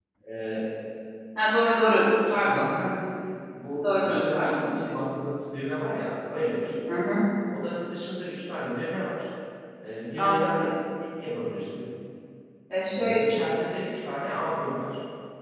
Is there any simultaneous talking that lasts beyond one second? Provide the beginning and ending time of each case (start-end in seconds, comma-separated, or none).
3.8-5.0